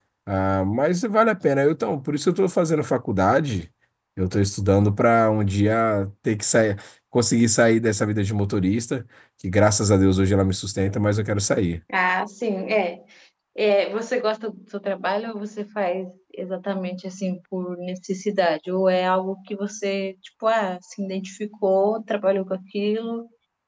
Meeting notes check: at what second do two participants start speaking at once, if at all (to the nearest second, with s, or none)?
none